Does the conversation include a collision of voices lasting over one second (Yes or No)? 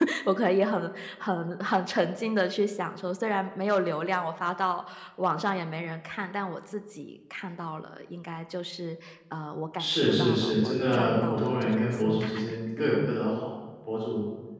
Yes